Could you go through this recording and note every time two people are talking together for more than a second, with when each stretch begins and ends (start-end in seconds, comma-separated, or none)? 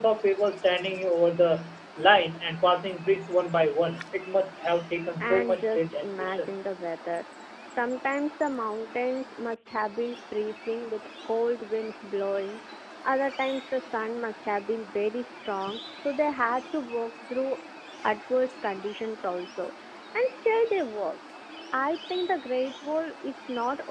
5.2-6.6